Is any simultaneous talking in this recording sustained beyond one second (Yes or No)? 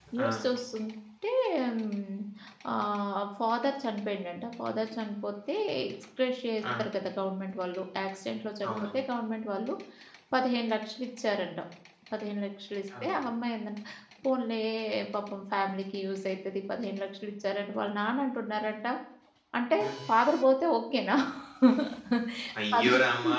No